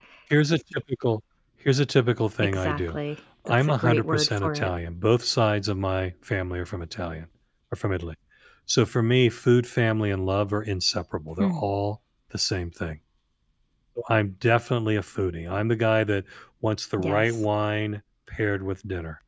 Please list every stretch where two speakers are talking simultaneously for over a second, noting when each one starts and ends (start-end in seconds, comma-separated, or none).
3.5-4.7